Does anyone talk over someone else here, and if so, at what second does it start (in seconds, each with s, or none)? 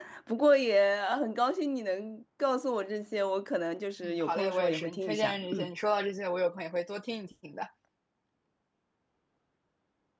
4.0 s